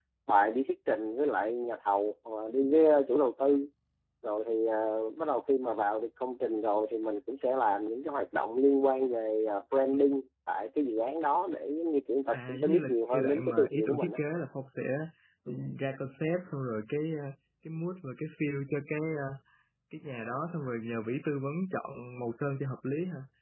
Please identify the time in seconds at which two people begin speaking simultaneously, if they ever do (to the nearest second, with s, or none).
12 s